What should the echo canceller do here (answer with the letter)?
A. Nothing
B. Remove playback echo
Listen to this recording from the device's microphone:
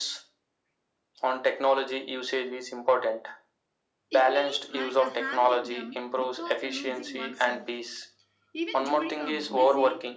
B